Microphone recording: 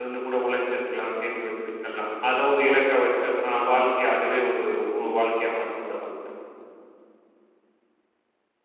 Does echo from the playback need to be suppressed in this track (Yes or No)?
No